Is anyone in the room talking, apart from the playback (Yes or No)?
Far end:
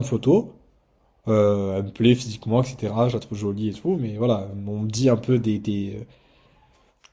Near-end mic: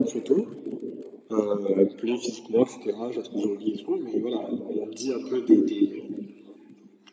No